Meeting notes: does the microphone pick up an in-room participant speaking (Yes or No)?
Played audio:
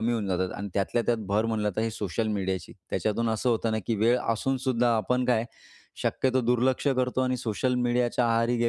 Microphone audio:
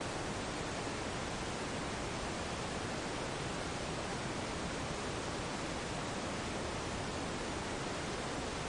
No